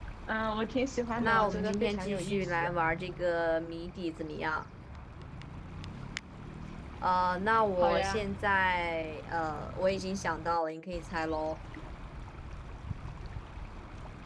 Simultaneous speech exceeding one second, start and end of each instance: 1.2-2.7

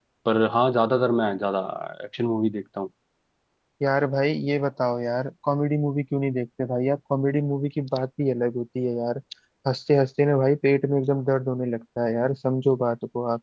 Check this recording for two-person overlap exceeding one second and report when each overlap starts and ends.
none

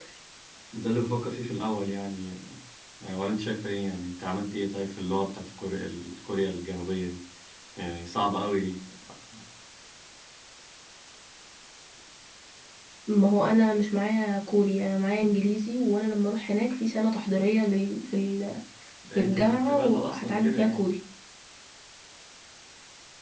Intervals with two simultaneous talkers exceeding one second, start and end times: 19.1-20.8

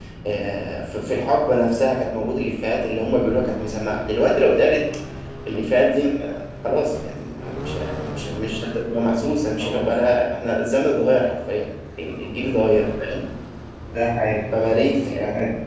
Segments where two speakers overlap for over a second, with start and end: none

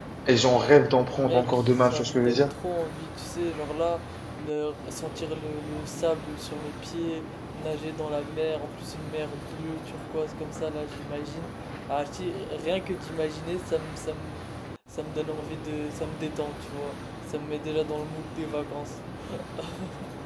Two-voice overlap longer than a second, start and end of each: 1.2-2.5

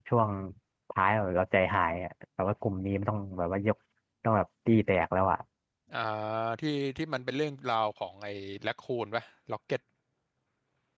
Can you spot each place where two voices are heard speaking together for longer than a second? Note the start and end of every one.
none

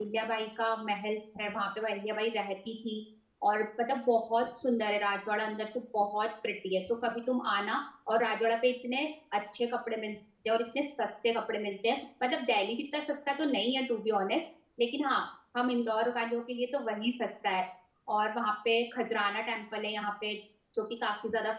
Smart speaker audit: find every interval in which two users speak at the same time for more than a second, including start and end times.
none

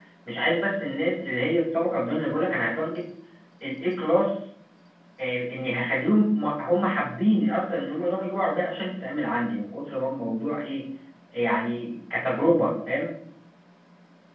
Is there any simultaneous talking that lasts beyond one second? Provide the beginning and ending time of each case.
none

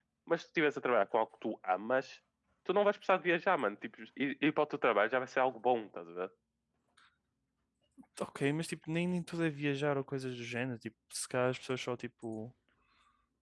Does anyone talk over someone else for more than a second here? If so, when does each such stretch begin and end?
none

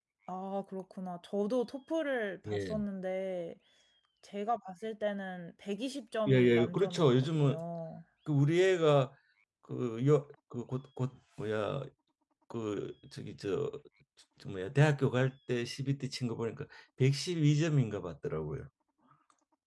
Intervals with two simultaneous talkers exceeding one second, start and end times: 6.3-7.6

